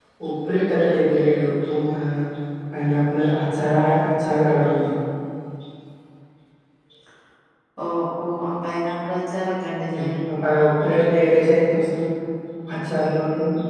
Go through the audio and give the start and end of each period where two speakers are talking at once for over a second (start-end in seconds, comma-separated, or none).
none